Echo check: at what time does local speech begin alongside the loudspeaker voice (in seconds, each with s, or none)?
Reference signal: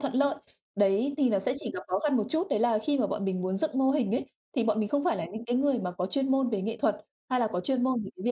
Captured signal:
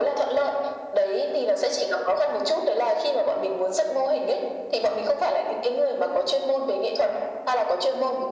none